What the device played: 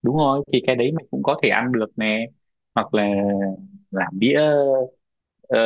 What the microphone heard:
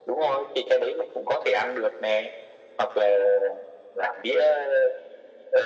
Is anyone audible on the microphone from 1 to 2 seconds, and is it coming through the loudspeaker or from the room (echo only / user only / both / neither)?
echo only